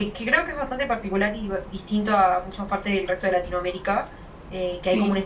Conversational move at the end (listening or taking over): listening